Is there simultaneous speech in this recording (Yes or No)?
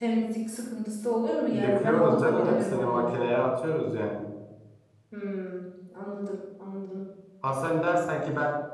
Yes